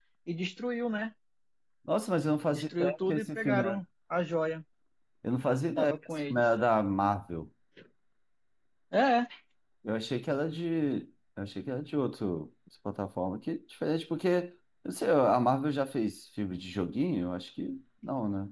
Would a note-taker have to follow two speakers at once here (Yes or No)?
Yes